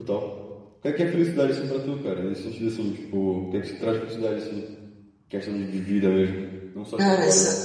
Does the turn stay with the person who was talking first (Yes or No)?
No